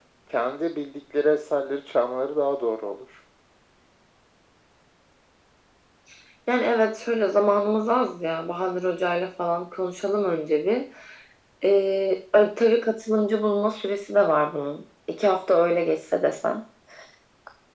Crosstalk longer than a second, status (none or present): none